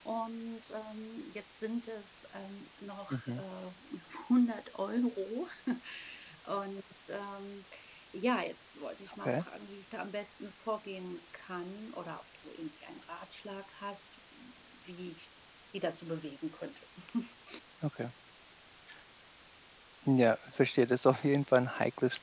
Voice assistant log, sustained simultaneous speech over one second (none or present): none